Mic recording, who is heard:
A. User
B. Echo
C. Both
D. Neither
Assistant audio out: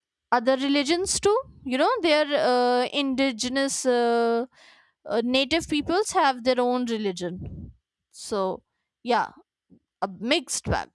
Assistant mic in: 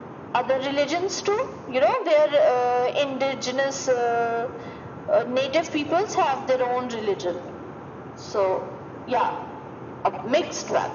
B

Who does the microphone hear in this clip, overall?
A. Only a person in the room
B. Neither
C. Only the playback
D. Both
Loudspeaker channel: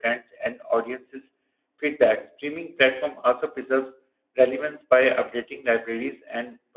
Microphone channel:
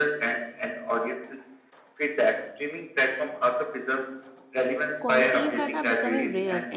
D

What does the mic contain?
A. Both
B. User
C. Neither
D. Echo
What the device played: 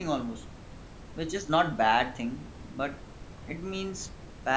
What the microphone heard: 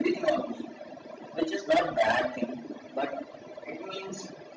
D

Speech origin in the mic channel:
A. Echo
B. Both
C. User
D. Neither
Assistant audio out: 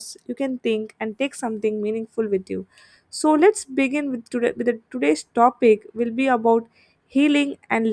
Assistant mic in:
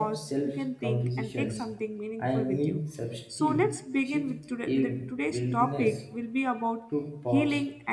B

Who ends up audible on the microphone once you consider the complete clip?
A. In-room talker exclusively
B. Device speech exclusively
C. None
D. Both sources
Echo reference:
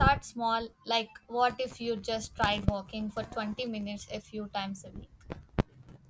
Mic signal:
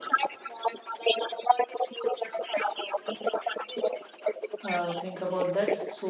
D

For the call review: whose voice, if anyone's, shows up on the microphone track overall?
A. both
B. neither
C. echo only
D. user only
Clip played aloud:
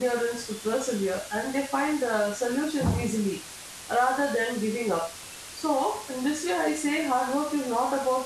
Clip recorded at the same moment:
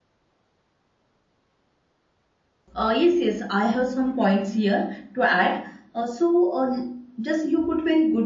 D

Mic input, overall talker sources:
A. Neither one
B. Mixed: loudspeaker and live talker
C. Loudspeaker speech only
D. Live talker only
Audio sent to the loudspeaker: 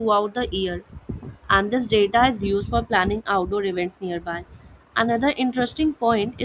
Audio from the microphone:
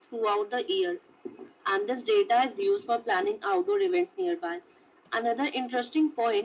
C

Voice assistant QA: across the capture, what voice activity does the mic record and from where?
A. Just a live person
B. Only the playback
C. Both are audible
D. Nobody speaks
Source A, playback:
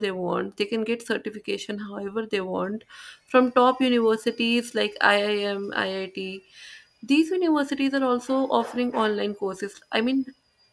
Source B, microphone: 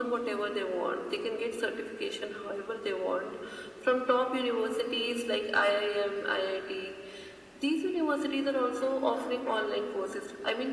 B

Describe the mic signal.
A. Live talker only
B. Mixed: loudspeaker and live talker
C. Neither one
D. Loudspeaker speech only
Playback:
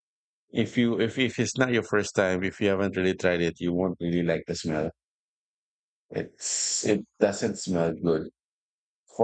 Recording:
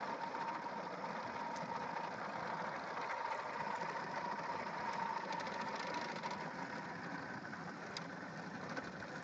C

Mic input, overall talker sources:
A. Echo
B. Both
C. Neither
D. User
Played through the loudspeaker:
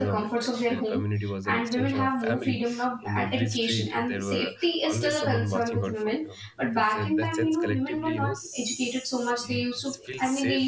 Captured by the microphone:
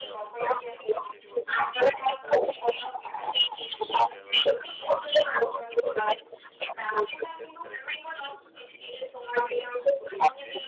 A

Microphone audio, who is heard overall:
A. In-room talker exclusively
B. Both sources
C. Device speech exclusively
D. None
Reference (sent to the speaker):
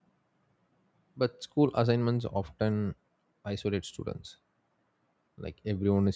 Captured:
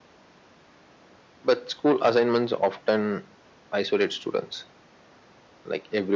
C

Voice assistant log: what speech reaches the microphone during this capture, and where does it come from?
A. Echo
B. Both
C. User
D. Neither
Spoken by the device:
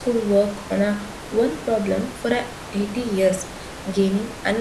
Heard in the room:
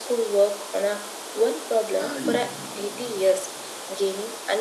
B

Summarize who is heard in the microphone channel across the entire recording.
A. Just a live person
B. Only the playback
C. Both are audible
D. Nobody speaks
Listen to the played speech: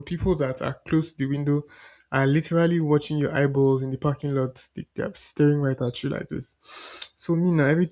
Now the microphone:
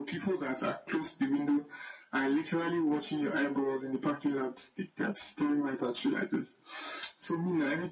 B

